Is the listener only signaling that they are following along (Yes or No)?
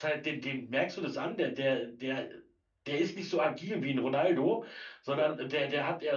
Yes